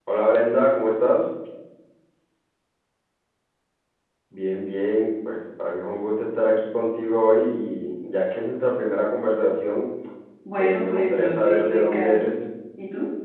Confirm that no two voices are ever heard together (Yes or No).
No